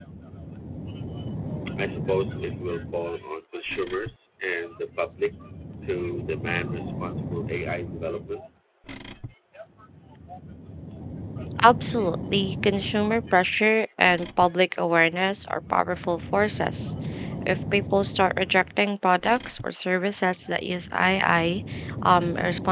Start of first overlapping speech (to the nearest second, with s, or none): none